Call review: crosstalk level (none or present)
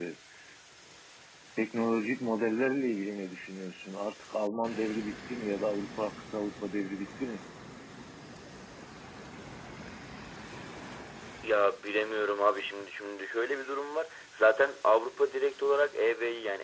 none